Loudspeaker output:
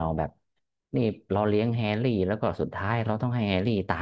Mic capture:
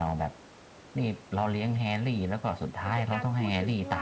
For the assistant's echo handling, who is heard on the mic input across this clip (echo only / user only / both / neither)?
both